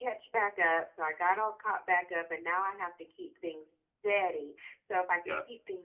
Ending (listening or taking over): listening